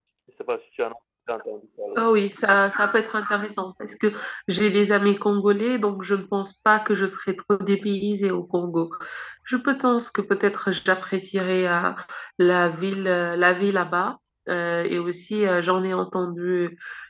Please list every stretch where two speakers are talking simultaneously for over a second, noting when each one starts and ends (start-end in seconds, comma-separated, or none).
none